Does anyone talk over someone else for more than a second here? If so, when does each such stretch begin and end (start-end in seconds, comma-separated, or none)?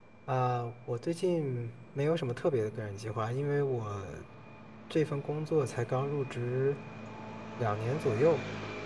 none